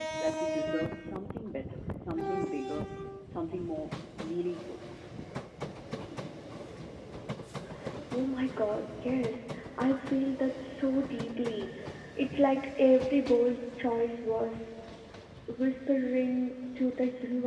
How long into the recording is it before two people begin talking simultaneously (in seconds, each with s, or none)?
none